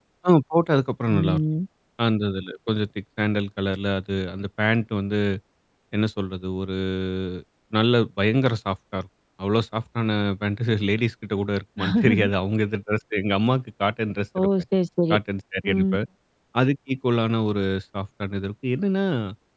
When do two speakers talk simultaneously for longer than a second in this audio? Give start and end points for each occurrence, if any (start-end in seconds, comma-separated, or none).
none